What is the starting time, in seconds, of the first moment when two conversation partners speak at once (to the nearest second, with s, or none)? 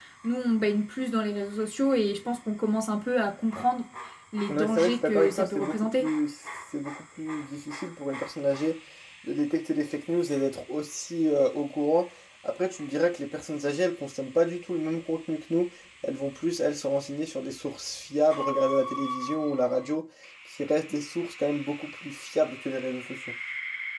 4 s